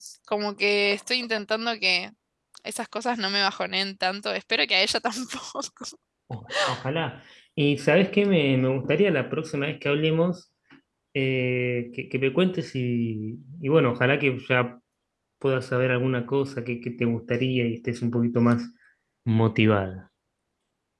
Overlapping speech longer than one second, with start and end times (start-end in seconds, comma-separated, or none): none